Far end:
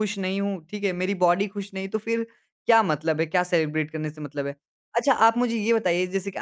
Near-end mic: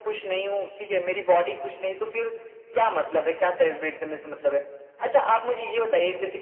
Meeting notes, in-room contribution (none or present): none